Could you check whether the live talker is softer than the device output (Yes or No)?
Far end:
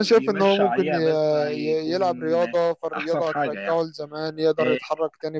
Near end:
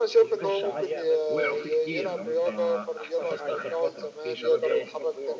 Yes